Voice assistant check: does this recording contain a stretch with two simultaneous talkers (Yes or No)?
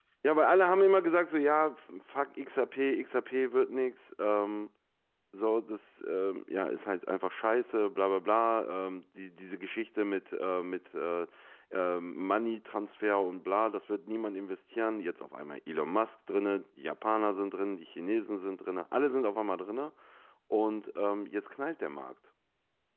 No